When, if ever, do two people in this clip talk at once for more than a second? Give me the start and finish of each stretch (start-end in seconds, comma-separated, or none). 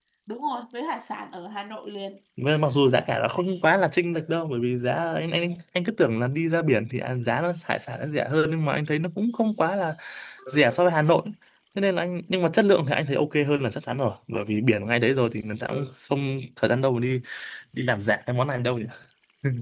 none